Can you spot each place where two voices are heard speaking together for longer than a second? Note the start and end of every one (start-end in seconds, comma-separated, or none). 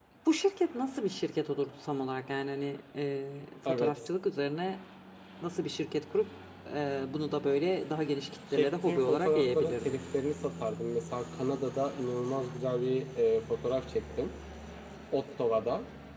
8.5-10.0